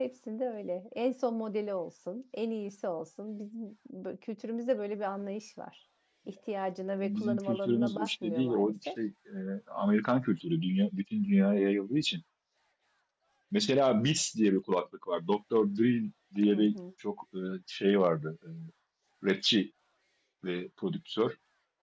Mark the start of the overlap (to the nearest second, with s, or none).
7 s